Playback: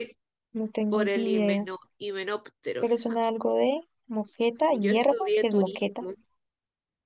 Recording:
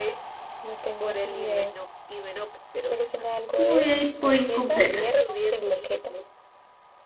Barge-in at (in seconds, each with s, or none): 3.6 s